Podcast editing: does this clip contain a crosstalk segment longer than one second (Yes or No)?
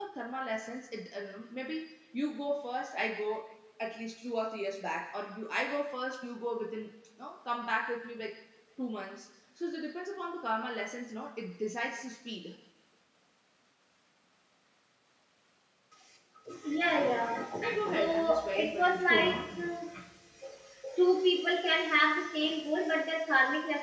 Yes